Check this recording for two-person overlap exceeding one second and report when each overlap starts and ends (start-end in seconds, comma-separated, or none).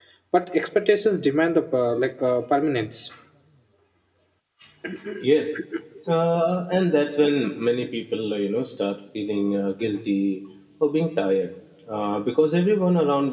none